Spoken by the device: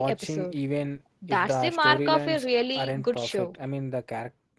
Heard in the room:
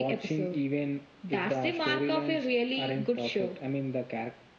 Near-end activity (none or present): none